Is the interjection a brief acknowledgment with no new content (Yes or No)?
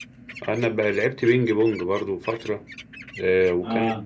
Yes